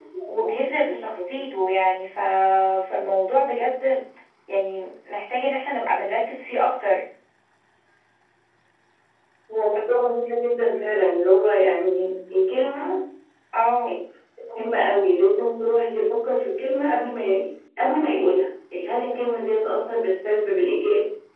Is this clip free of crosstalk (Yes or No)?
Yes